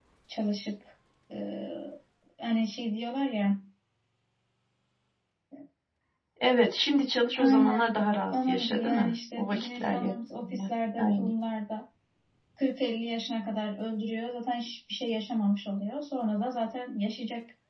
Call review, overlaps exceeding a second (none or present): present